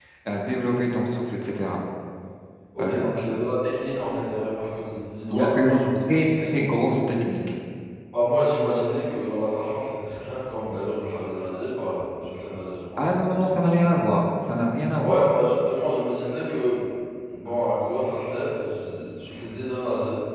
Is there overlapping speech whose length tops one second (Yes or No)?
Yes